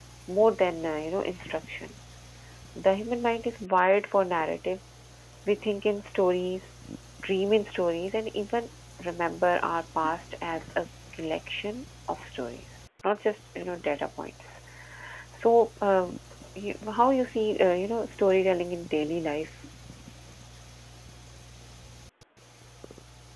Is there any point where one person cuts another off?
No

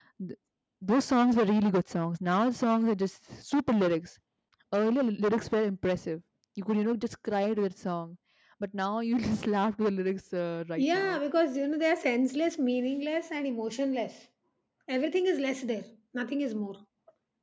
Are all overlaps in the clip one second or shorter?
Yes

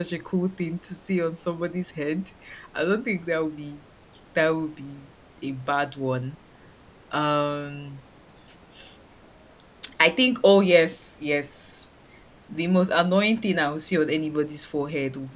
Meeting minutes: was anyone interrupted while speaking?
No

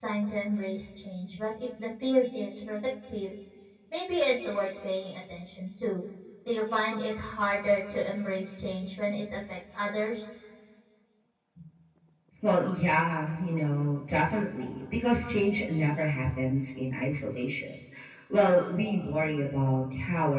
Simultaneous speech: No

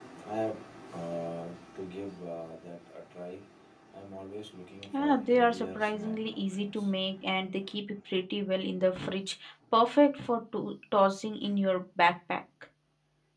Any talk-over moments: Yes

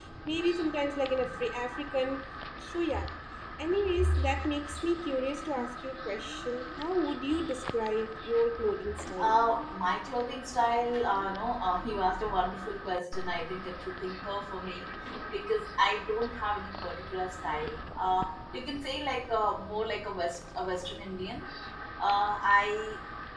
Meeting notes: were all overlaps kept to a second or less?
Yes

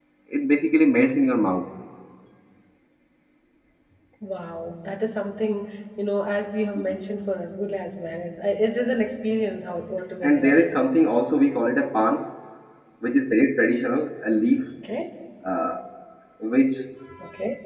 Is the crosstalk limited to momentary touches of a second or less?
Yes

